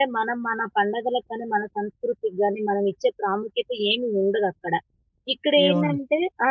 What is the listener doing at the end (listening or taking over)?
listening